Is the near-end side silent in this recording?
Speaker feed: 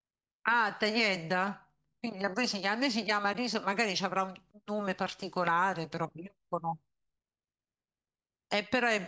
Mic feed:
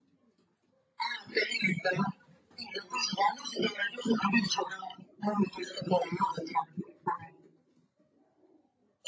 Yes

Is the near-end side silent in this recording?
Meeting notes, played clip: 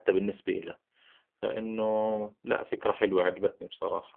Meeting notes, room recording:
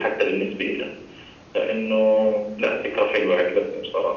Yes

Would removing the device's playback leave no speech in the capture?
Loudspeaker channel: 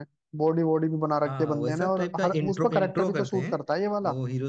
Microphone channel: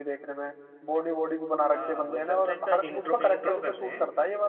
Yes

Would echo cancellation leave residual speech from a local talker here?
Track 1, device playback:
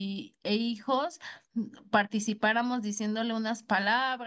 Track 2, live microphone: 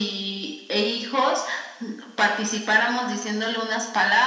No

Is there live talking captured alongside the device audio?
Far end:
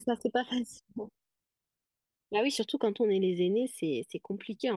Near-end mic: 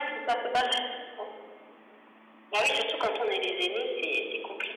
No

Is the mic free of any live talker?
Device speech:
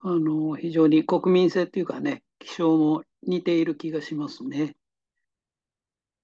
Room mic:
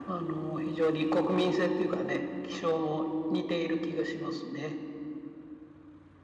Yes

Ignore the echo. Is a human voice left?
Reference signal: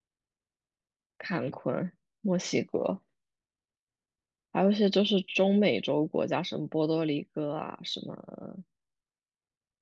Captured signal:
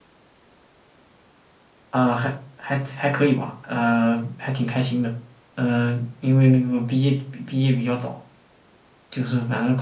Yes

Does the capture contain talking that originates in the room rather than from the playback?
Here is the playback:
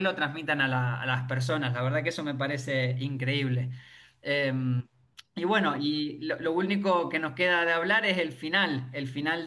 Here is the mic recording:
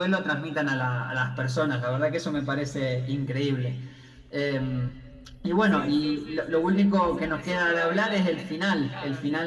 Yes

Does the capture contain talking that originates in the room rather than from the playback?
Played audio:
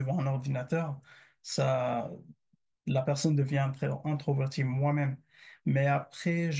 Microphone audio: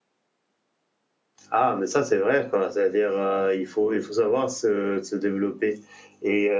Yes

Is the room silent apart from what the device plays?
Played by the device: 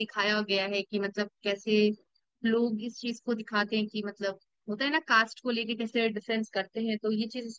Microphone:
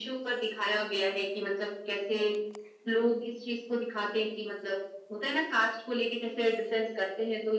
Yes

